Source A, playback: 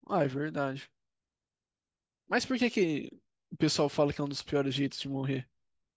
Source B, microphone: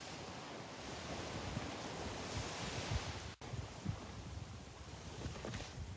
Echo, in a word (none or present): none